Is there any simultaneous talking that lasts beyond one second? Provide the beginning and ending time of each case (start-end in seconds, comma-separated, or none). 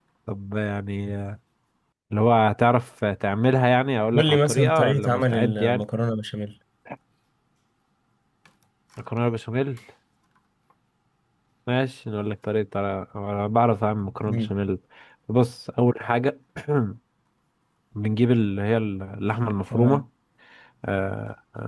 4.2-5.8